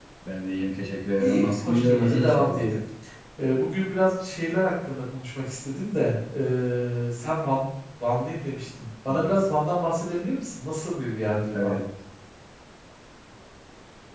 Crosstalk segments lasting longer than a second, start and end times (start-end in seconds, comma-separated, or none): 1.2-2.6